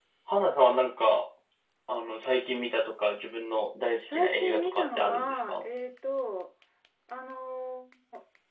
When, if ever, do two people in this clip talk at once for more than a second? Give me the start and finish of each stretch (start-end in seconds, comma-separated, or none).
4.1-5.6